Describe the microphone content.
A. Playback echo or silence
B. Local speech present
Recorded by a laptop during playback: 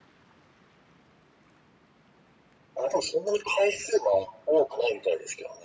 A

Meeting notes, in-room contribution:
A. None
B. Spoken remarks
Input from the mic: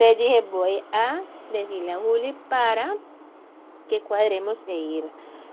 B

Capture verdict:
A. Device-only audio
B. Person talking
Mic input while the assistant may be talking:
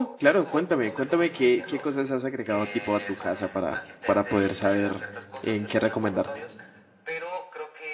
B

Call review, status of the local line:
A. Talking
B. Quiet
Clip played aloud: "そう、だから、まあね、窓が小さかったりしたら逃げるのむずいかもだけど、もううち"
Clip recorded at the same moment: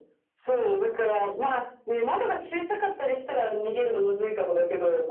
B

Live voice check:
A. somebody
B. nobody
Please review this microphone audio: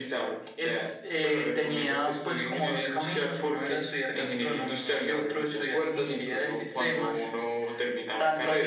B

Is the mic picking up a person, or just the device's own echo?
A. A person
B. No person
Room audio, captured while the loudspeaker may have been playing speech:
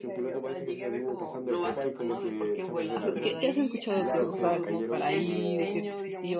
A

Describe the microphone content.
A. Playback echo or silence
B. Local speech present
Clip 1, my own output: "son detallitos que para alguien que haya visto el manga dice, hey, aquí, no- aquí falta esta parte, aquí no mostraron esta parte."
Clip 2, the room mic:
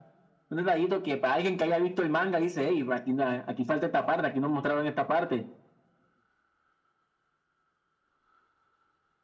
A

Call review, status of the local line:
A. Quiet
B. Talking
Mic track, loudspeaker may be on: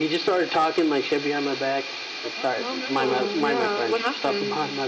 B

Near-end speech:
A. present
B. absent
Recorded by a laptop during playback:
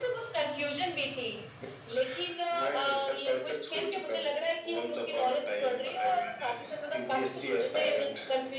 B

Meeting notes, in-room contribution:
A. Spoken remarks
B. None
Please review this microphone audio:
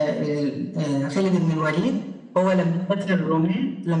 B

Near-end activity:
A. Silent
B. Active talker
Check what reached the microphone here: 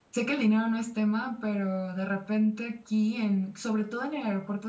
B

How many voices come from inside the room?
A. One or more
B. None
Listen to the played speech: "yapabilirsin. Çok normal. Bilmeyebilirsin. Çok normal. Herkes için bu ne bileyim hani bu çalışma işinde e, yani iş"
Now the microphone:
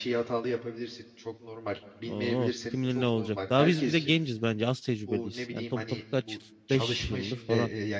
A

